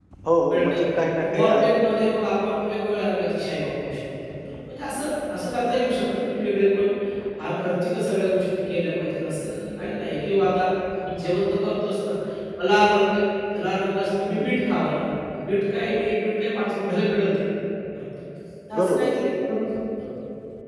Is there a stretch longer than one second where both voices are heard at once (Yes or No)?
No